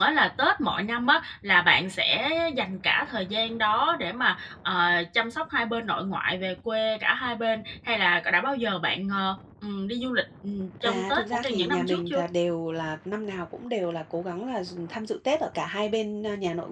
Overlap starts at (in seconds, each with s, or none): 10.8 s